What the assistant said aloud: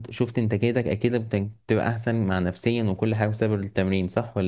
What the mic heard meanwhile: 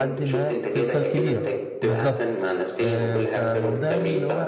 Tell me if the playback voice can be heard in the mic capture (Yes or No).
Yes